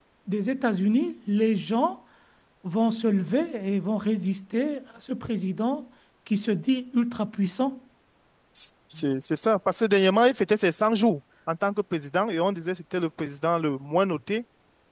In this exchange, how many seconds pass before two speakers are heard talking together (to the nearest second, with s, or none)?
none